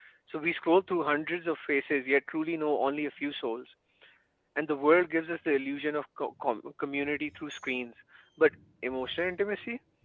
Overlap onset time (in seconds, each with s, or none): none